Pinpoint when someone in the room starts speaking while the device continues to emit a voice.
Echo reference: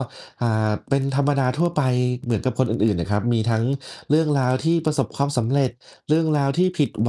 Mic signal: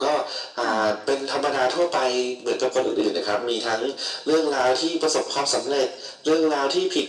0.6 s

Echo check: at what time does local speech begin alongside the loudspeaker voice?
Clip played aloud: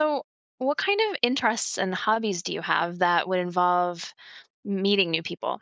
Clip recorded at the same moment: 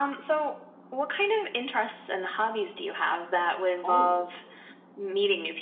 3.8 s

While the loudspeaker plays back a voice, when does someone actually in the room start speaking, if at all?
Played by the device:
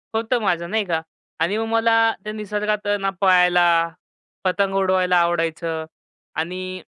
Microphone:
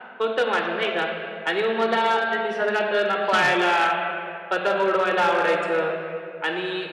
3.2 s

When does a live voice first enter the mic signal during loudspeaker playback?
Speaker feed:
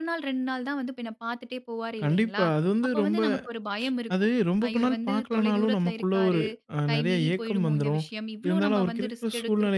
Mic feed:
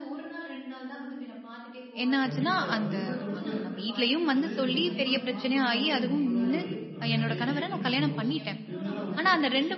2.0 s

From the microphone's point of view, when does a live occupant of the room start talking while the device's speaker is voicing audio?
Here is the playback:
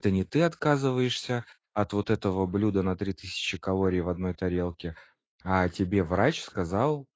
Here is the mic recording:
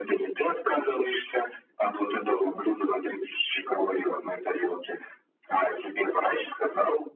none

